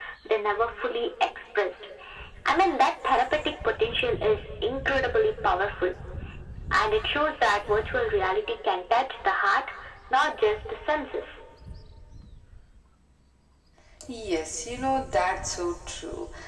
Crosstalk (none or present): none